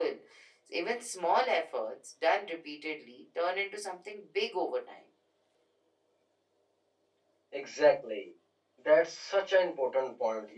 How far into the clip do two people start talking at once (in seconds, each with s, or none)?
none